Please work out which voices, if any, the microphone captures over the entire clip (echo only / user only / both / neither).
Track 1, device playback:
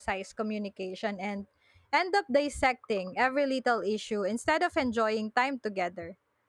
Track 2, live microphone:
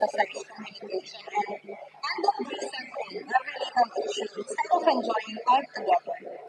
echo only